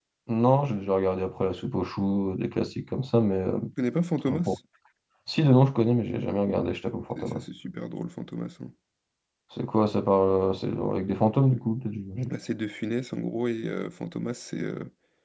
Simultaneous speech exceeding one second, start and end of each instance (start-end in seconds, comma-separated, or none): none